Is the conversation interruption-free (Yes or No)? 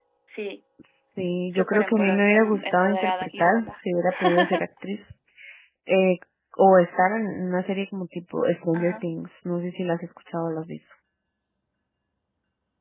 No